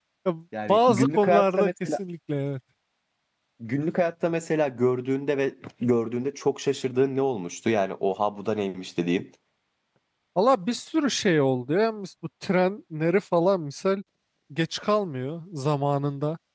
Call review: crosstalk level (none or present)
present